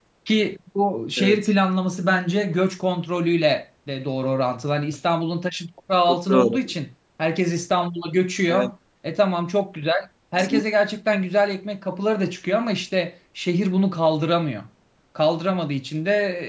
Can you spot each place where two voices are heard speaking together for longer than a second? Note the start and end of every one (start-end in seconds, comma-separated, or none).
none